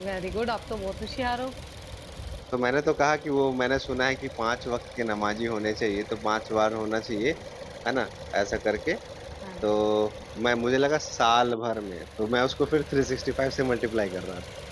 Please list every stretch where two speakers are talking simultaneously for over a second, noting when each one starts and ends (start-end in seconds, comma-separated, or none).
none